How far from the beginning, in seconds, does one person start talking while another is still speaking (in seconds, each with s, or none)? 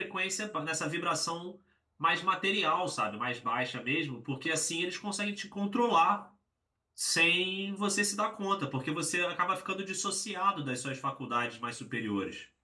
none